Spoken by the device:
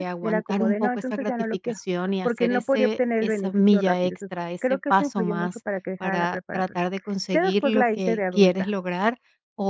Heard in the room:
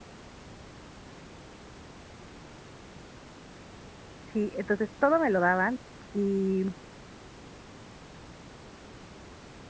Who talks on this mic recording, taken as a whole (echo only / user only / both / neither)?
user only